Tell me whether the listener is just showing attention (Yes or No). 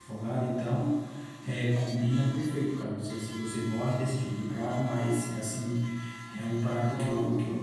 No